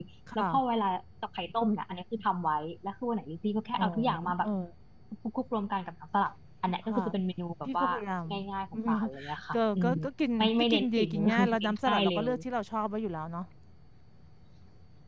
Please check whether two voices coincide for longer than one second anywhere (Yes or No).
Yes